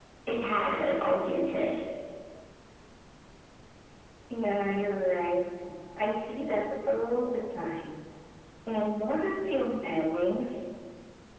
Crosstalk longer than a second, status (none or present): none